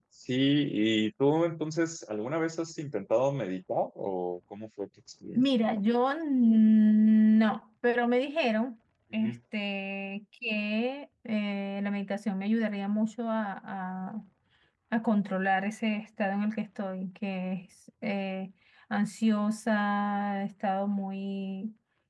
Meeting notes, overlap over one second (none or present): none